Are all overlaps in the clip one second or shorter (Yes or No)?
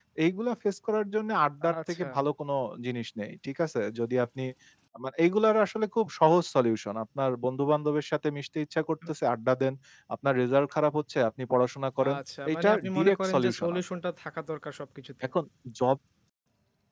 No